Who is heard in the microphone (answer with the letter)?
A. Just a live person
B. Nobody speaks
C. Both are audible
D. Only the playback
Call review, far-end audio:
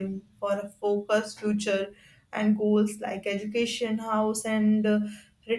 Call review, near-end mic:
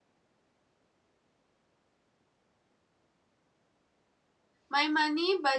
A